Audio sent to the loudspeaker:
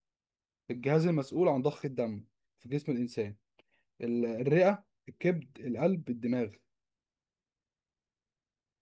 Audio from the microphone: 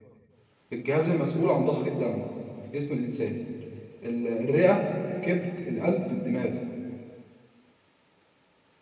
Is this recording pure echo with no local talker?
Yes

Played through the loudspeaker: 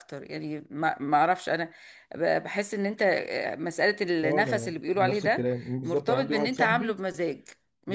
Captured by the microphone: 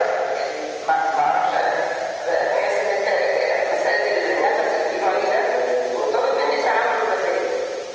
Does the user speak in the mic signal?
No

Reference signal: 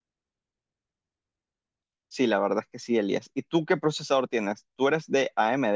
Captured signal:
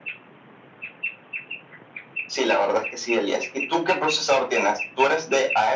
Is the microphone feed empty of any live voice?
Yes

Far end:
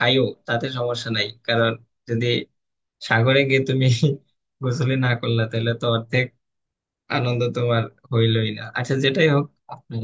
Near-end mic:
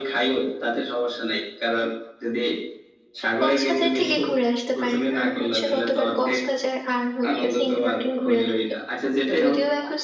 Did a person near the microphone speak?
Yes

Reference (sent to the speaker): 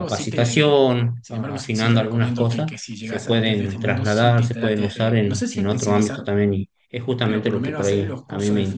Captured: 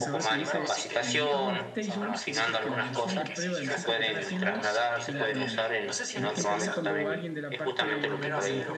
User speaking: Yes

